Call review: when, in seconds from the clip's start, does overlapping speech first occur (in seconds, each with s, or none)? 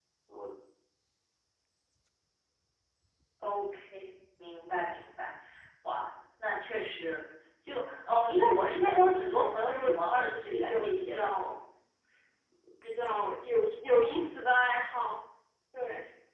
9.1 s